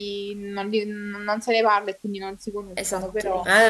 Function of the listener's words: taking over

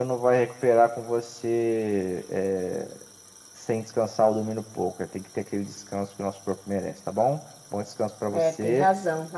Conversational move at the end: taking over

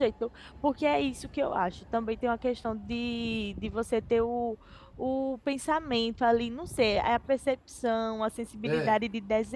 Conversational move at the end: listening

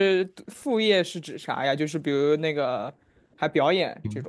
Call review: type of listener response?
taking over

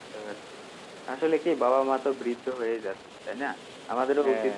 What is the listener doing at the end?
listening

